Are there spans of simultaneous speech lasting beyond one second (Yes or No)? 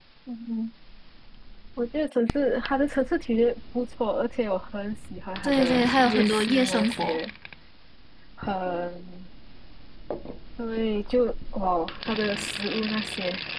Yes